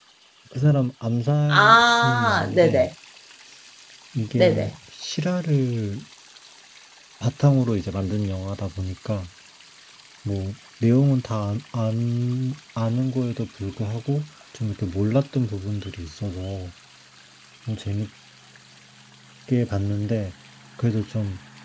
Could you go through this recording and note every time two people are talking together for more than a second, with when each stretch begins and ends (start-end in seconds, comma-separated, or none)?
1.5-2.9